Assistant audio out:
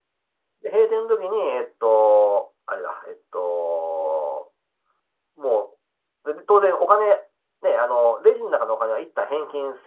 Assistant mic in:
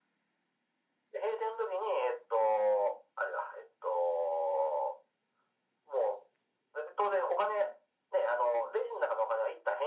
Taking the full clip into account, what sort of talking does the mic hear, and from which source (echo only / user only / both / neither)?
echo only